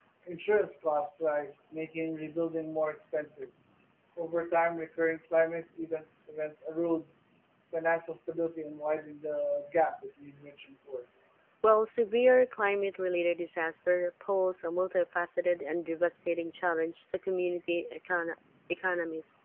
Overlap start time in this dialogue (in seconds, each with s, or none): none